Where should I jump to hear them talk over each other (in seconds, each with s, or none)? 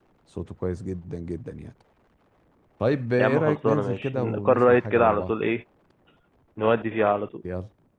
3.2 s